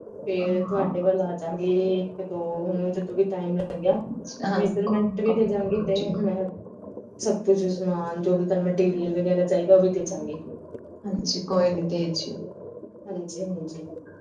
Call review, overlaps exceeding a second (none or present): present